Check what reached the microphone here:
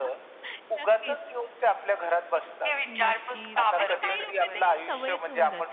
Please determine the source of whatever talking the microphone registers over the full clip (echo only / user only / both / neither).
both